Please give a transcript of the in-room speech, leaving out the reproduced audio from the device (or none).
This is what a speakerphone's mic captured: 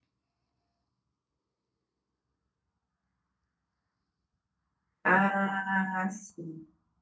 Ah, sim,